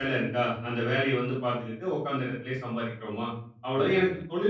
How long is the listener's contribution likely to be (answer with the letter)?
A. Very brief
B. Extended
A